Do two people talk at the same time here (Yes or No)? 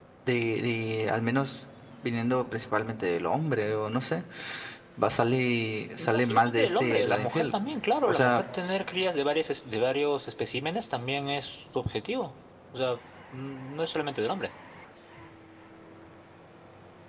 Yes